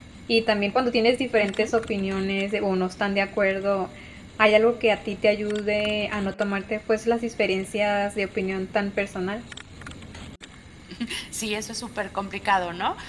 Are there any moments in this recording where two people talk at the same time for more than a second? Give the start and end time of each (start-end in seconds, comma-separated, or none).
none